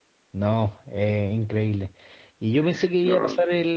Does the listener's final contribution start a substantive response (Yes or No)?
No